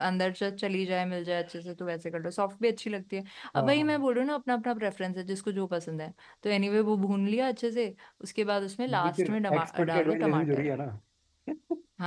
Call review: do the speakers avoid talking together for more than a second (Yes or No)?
No